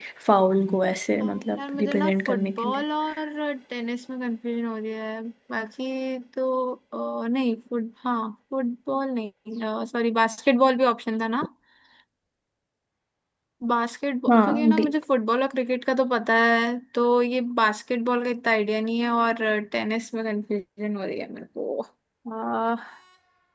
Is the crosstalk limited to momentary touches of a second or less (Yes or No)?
No